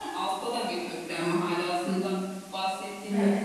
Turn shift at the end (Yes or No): No